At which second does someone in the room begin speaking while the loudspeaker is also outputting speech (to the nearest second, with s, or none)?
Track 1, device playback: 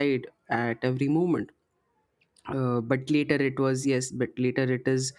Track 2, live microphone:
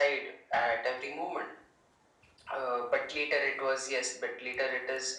none